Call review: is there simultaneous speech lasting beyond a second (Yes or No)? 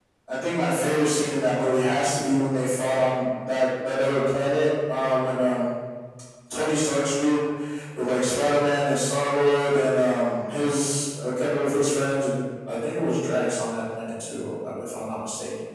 No